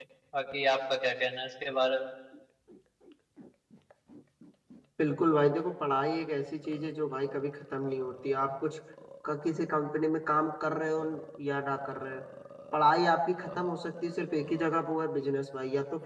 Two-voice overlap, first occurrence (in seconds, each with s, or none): none